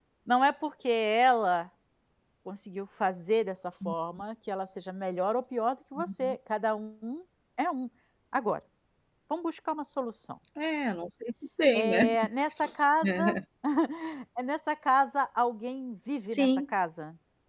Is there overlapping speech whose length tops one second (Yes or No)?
No